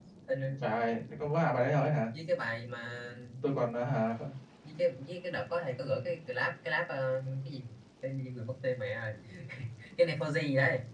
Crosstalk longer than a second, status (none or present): none